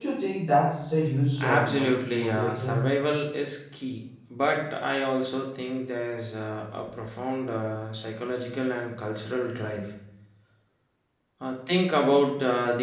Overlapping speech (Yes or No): Yes